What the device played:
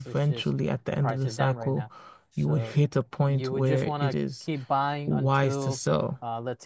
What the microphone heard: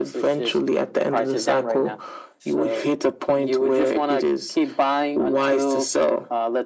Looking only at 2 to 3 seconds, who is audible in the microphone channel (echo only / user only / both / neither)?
echo only